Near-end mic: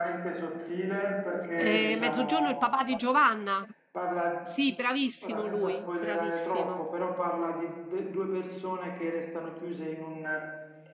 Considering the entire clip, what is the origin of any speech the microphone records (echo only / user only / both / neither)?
both